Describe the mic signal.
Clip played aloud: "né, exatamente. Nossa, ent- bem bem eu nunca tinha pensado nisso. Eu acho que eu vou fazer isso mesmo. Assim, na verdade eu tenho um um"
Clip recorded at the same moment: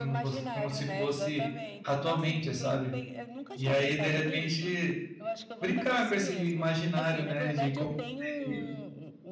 both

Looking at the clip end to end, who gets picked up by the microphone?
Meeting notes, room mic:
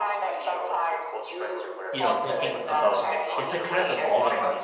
both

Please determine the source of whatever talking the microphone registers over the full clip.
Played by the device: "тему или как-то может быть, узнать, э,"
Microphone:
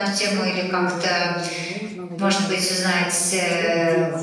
both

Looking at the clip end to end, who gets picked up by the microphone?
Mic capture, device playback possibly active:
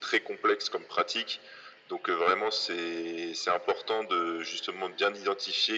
echo only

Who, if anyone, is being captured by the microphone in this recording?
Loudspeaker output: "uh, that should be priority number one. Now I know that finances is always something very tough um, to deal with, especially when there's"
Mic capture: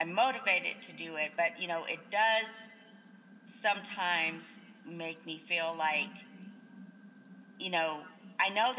user only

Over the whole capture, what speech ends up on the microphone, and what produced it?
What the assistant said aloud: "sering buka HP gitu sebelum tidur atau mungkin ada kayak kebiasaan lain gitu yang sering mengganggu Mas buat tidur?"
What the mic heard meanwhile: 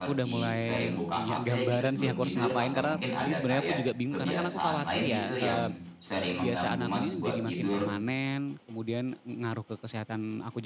both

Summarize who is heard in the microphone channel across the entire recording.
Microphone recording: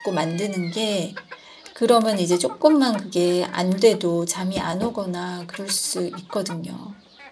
user only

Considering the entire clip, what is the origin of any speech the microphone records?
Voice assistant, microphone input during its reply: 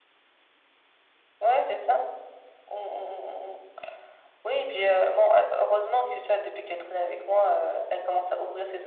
echo only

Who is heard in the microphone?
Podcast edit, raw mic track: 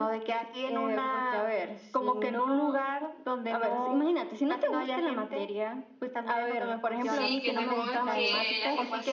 both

